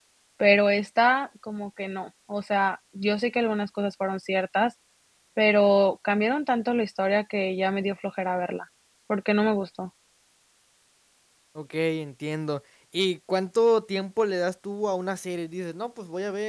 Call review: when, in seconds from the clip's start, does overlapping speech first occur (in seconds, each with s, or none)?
none